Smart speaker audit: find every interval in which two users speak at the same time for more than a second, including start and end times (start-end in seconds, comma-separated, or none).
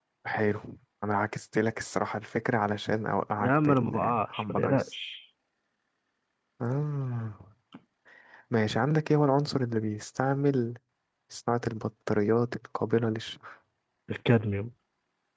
3.4-4.8